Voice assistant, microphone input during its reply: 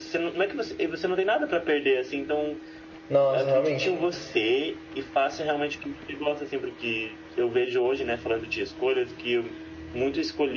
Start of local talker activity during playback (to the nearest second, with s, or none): 3 s